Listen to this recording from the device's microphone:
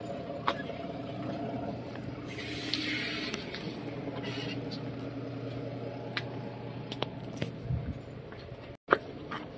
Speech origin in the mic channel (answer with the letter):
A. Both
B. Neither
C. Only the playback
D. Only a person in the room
B